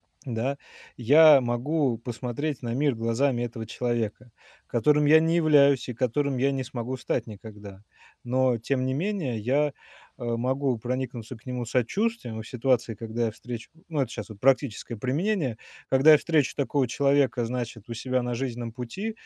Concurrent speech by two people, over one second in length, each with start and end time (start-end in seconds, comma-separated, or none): none